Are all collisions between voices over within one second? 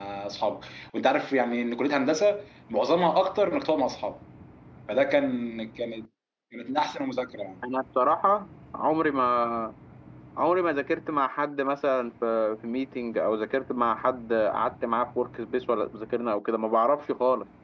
Yes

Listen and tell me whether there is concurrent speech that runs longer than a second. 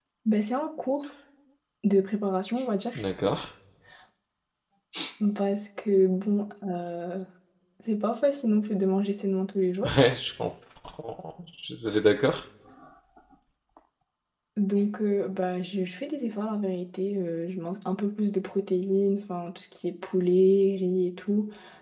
No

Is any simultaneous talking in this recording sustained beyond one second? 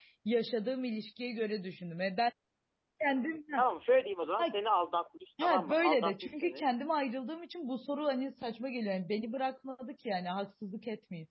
Yes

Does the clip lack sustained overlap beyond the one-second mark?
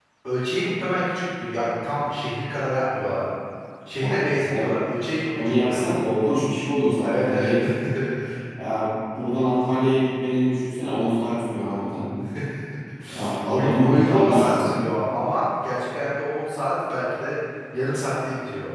No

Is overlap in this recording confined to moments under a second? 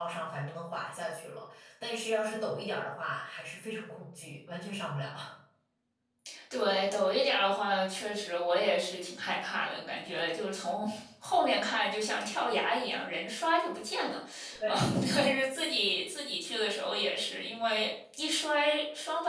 Yes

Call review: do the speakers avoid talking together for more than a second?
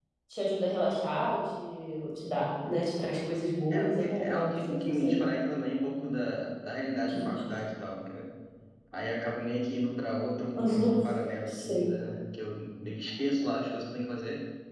No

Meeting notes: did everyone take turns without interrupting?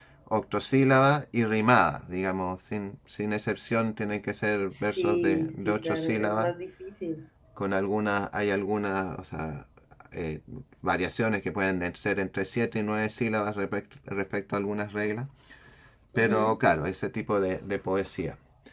No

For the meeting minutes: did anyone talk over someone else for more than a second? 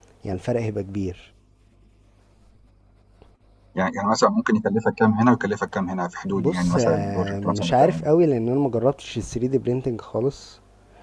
Yes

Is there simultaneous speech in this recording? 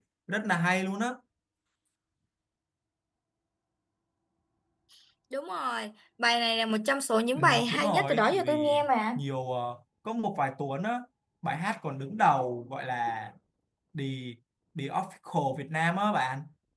Yes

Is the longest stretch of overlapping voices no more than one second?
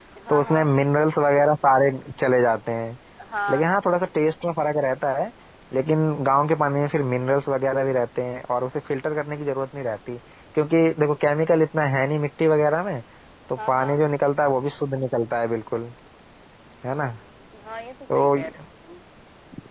Yes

